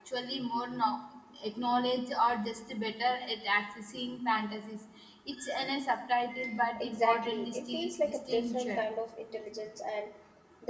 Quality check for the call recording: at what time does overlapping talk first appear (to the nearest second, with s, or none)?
7 s